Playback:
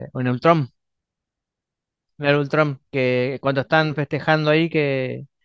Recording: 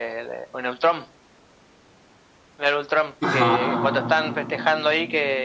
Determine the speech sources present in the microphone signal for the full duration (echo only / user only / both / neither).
both